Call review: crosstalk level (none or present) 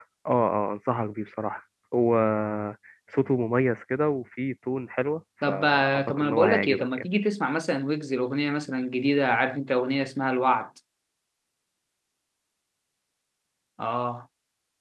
present